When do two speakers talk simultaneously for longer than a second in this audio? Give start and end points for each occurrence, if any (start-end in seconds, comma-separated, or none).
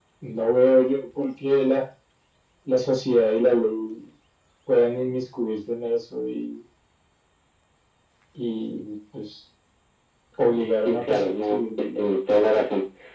10.8-12.1